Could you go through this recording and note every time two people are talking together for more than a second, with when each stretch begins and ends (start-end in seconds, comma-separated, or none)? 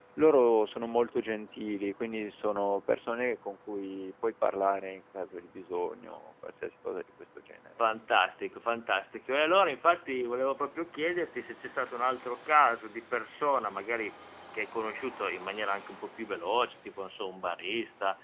none